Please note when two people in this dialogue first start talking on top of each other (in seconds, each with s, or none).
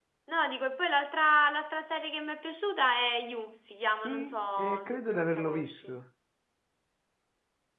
4.0 s